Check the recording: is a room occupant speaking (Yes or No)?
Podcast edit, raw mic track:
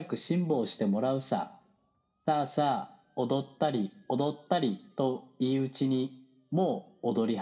No